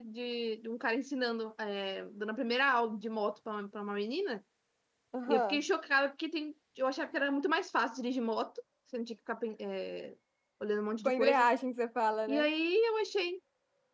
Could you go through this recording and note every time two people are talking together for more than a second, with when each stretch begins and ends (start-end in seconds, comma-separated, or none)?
none